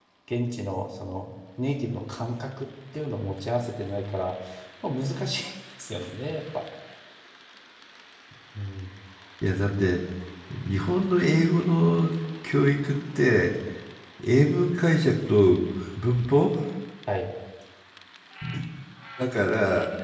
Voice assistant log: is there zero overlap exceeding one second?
Yes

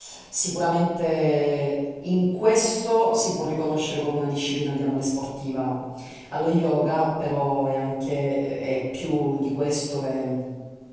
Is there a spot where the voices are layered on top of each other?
No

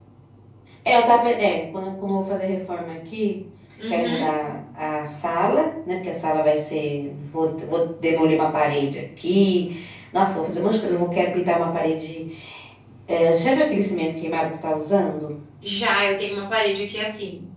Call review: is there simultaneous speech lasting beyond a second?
No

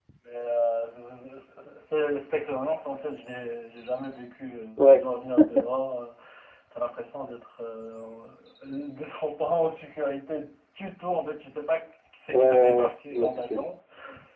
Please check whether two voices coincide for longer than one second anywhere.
Yes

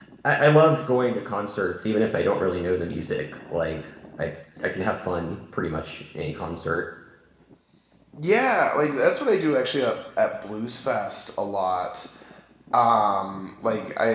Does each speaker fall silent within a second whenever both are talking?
Yes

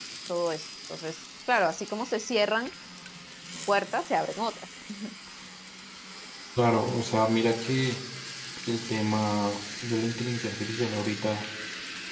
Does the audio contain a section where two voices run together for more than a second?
No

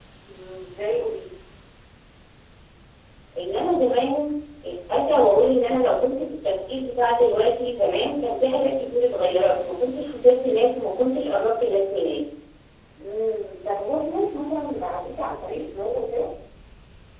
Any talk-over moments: No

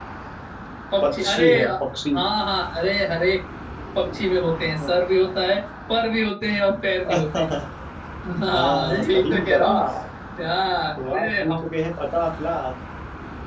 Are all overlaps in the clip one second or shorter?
No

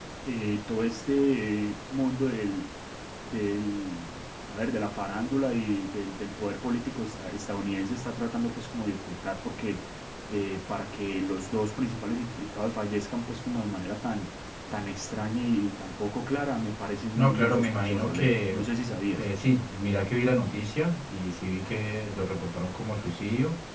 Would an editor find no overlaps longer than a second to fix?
No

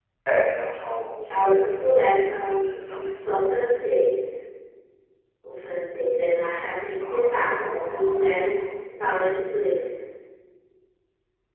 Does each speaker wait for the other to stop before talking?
No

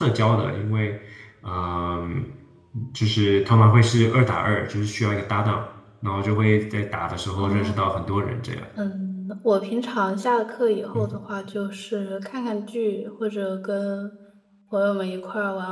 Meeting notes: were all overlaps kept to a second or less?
Yes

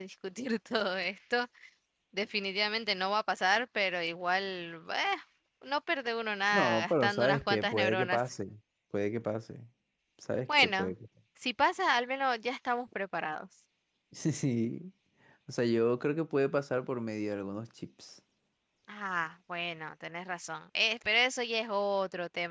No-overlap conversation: No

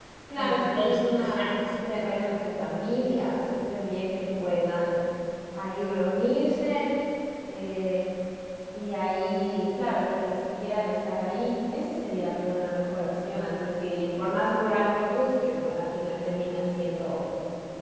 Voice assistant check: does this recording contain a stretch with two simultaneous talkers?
Yes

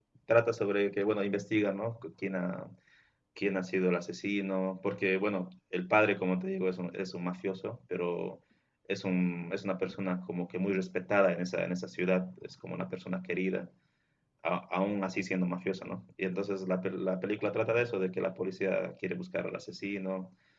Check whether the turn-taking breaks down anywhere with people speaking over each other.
No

